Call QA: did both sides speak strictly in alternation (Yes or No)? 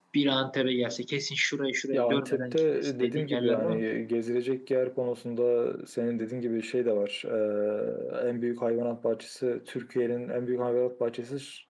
No